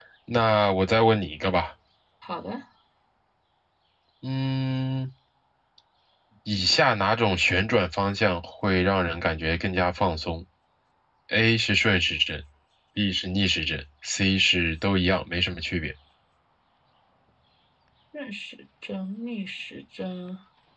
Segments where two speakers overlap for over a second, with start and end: none

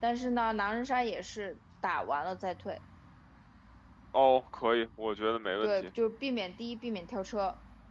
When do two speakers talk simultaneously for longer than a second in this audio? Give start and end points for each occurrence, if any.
none

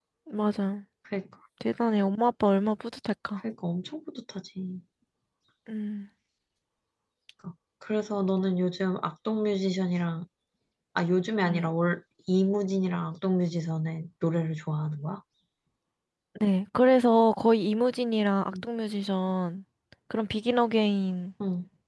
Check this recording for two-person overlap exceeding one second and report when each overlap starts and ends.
none

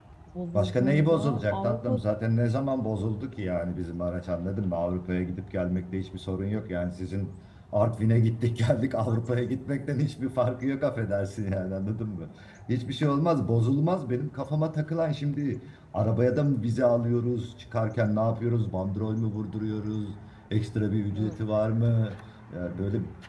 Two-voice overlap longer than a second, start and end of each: 0.5-2.0

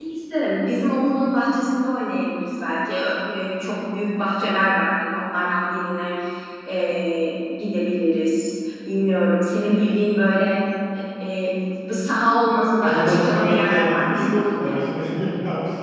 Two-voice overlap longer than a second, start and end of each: 12.8-14.8

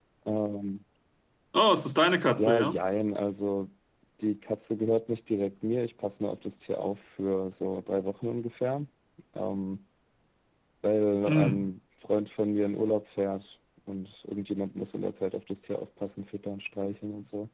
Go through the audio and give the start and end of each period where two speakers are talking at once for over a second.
none

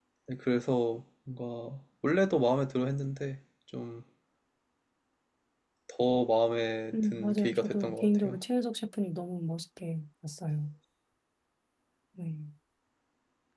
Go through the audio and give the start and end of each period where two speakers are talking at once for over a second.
7.0-8.4

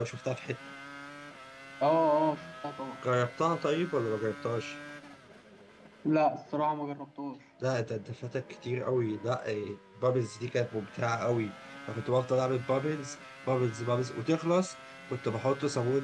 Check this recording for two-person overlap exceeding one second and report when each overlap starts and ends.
none

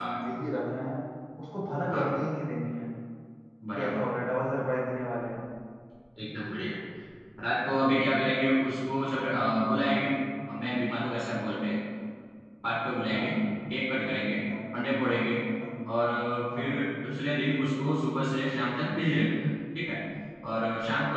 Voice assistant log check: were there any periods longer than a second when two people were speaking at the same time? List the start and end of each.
none

